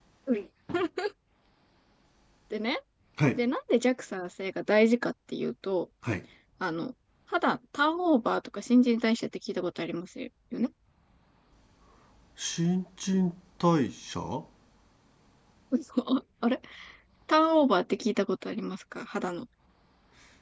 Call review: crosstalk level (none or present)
none